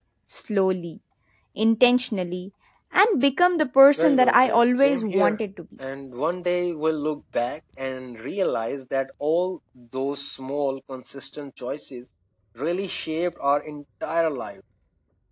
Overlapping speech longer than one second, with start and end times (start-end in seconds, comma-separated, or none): 4.0-5.4